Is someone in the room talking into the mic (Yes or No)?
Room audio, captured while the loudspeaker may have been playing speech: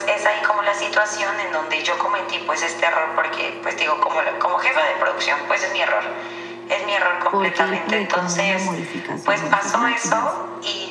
Yes